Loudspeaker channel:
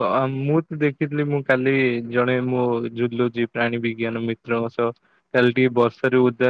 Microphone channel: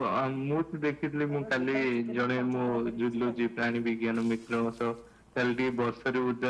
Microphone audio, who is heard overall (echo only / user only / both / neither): both